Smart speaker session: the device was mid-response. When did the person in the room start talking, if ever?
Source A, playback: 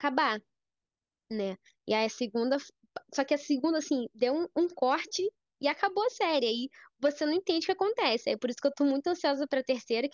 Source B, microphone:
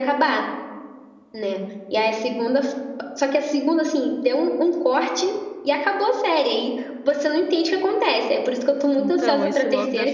9.0 s

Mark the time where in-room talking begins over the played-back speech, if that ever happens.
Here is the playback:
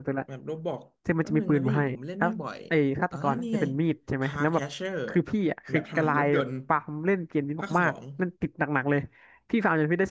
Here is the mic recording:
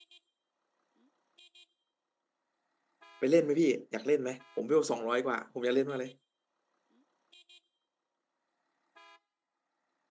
3.2 s

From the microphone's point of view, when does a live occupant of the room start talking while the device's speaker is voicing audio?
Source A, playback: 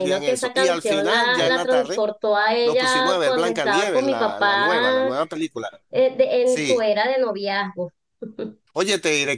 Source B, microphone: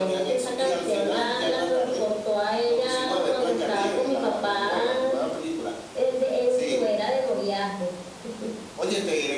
none

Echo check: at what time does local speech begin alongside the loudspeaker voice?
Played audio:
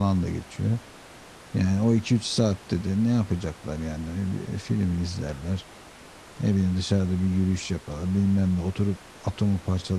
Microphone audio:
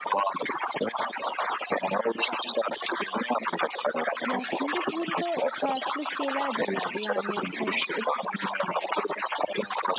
4.2 s

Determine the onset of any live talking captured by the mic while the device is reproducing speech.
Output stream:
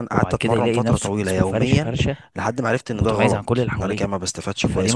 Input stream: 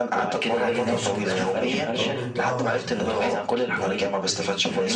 0.5 s

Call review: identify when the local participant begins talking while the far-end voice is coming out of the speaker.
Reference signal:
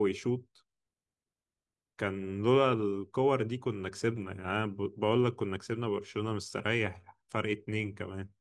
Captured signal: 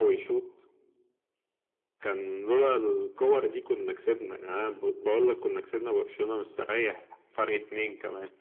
none

